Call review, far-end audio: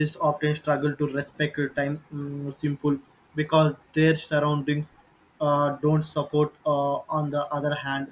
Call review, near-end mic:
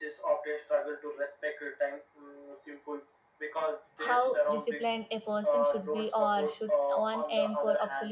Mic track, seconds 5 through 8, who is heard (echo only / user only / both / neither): both